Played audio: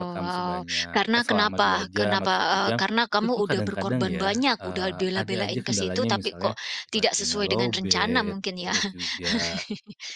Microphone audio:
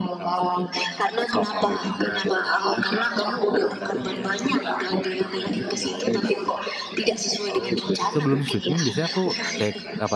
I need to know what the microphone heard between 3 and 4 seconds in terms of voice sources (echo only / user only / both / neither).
echo only